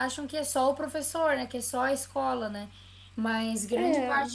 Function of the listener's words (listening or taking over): listening